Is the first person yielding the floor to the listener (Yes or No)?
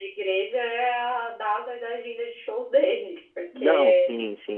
Yes